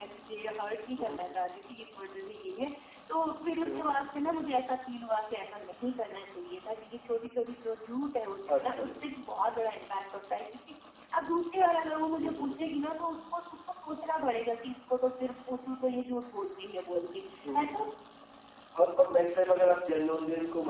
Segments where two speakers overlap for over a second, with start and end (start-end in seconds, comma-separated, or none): none